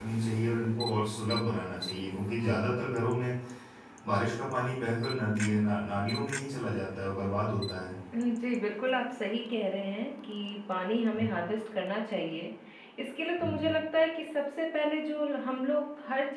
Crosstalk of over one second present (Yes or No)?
No